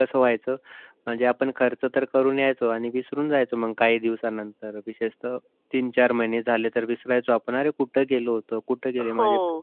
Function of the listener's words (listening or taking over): taking over